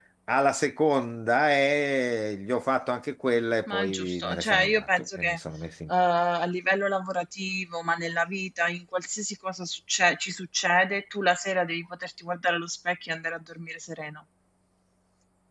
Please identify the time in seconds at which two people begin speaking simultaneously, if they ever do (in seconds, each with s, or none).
3.7 s